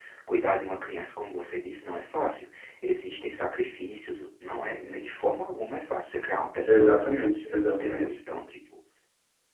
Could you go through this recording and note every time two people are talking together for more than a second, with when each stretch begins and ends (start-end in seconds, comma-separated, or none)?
none